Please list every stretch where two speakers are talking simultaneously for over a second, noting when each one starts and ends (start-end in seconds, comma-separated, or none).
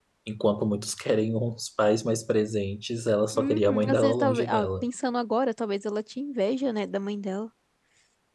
3.4-4.8